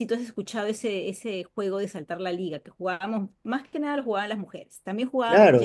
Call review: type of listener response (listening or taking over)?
taking over